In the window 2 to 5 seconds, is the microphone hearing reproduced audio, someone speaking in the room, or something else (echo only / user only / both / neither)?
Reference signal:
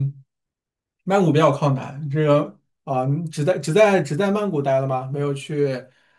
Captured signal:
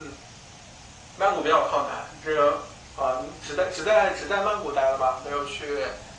echo only